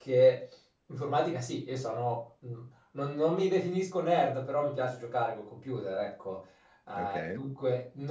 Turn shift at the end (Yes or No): No